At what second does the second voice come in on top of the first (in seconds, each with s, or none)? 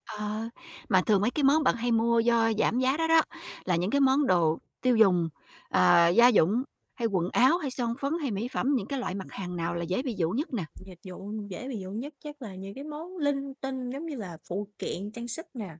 none